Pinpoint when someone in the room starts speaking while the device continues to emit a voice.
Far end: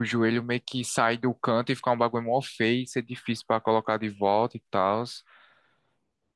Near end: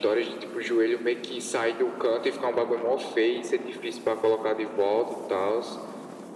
none

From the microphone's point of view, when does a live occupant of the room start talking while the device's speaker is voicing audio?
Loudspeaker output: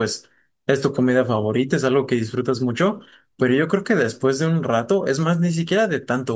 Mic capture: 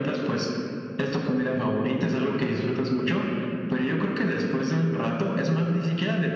none

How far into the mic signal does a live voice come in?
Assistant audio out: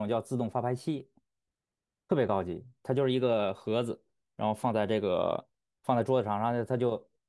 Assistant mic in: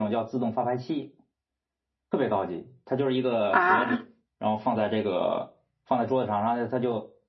3.5 s

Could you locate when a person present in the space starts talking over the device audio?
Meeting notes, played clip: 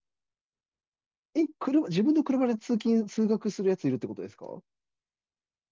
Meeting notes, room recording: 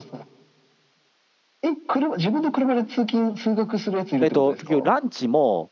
4.2 s

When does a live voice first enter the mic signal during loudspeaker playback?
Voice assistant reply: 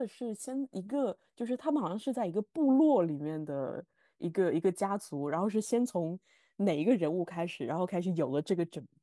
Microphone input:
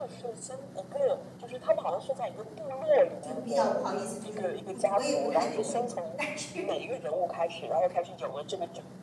3.2 s

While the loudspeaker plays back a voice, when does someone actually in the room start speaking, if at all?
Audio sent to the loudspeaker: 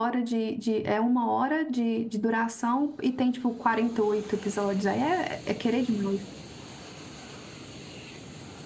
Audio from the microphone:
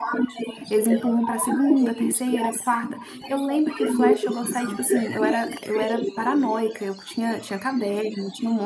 0.7 s

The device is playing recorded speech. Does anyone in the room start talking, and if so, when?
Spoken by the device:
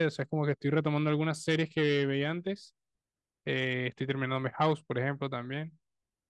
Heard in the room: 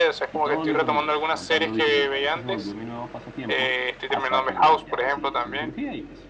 0.3 s

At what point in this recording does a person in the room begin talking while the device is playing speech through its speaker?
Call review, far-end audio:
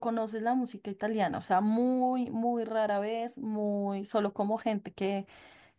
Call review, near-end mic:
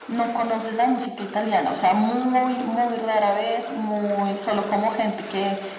none

